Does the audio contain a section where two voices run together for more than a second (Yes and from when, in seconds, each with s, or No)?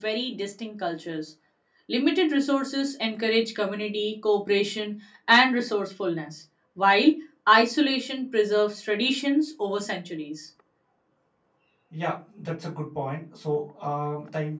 No